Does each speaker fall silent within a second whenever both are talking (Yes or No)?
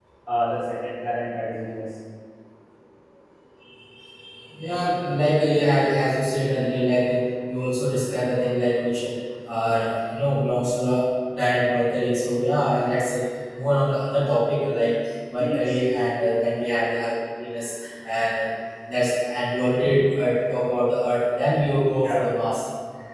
Yes